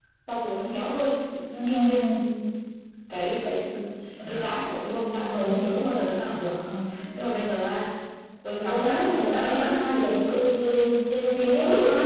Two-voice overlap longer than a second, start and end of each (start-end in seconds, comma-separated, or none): 8.6-10.4